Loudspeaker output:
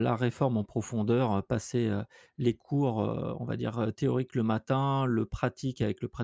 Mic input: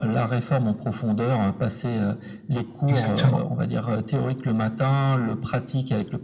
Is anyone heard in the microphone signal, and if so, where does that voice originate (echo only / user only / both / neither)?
both